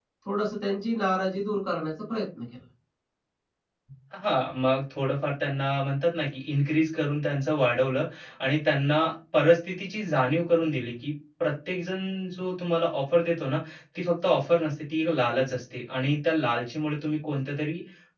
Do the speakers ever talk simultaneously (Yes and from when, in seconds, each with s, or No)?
No